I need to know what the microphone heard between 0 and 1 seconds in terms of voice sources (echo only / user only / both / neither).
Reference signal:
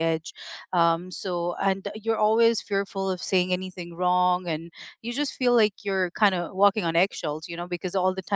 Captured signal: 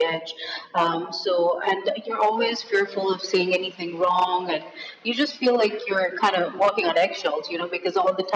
echo only